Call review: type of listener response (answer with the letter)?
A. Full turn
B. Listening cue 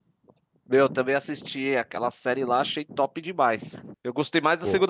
B